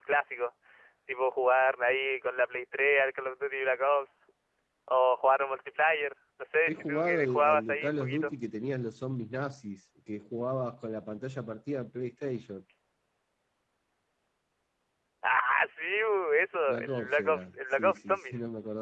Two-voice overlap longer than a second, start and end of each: 6.7-8.3, 16.7-18.3

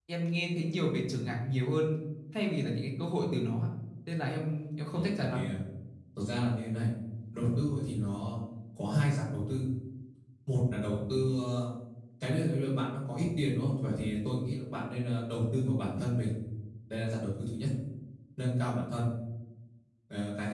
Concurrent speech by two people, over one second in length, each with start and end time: none

